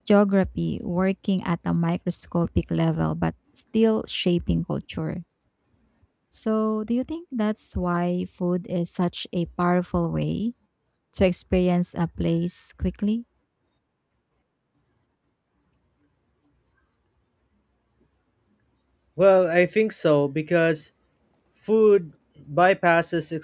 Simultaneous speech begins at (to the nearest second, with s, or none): none